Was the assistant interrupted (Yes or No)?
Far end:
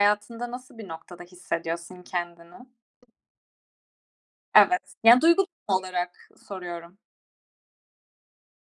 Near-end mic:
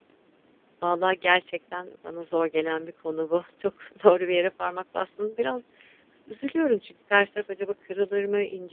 Yes